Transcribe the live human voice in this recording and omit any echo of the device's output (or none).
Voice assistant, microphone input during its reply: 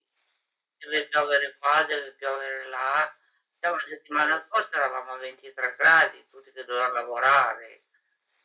none